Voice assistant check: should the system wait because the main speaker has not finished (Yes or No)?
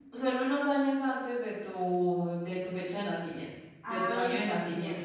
No